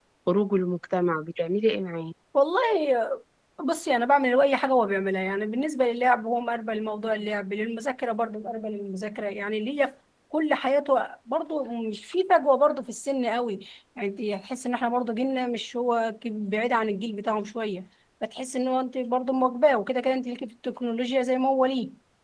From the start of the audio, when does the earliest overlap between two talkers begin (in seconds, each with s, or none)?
none